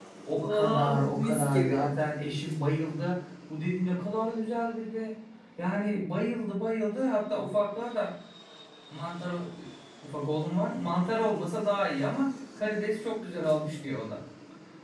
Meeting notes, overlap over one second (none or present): present